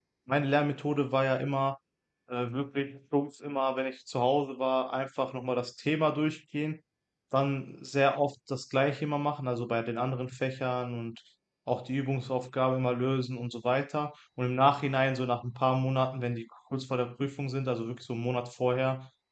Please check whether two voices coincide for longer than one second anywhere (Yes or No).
No